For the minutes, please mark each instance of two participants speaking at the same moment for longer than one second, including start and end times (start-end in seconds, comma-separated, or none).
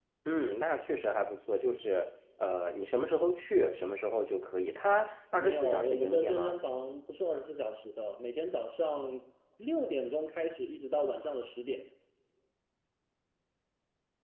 5.4-6.6